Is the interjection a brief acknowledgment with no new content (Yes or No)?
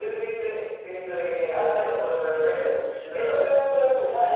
No